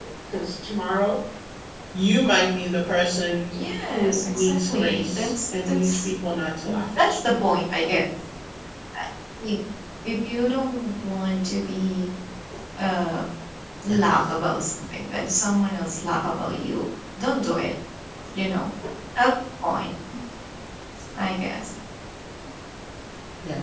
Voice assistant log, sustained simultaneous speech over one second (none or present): present